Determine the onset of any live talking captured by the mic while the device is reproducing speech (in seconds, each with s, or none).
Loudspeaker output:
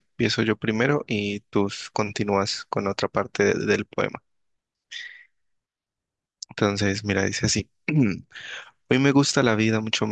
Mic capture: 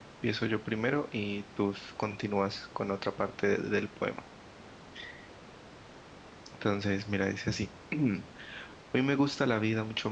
none